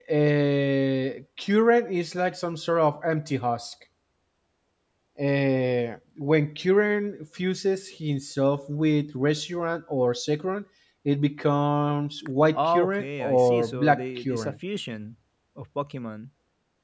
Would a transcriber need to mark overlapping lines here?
Yes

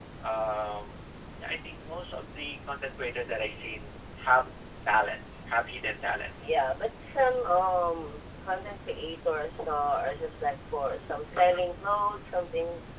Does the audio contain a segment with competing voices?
No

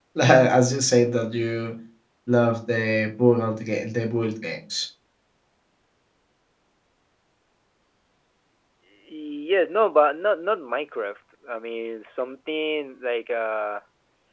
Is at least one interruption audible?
No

